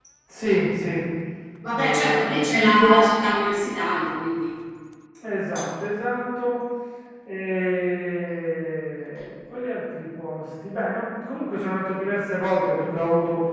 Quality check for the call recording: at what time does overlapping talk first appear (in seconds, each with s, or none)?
1.7 s